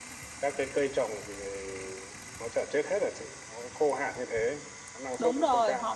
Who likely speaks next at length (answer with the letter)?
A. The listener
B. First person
A